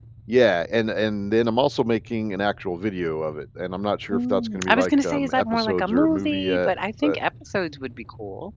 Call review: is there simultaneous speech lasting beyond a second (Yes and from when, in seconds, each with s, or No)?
Yes, from 4.1 s